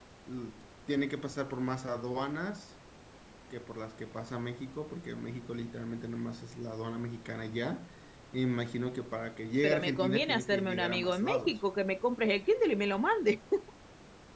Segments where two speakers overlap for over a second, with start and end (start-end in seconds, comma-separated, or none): 9.6-11.6